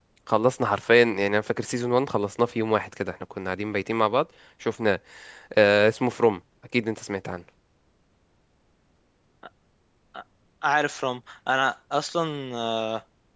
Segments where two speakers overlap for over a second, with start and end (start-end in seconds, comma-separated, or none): none